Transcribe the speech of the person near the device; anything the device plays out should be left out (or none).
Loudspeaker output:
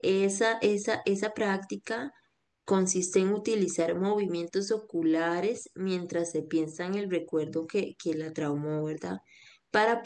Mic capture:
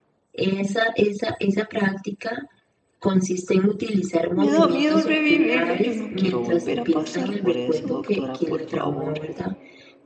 Me da miedo revivirlo. Yo no quiero volver a pasar por eso, doctora, por favor.